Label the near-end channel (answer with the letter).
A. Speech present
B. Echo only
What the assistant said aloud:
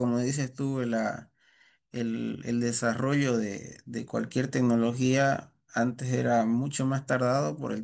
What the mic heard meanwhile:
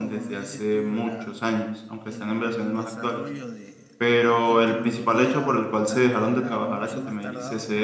A